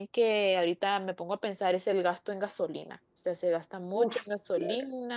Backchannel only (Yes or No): Yes